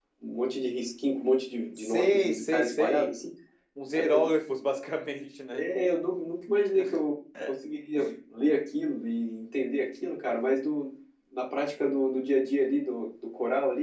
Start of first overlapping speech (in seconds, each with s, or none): 1.8 s